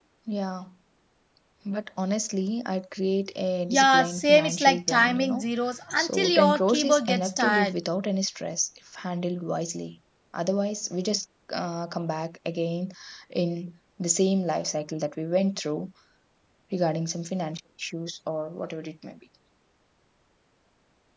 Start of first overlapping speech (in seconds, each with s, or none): 3.7 s